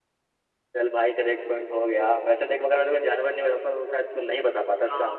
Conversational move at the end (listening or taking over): taking over